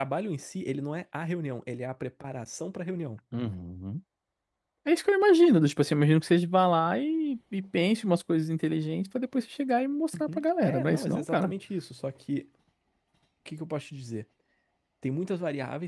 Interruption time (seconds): 10.1 s

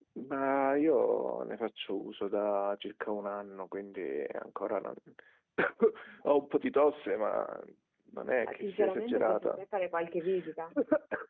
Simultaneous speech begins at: 8.4 s

